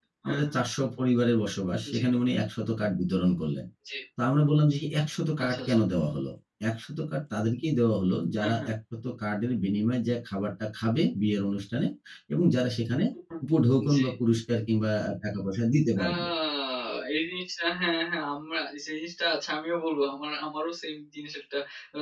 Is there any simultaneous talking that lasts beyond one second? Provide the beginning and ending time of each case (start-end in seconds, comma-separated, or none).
none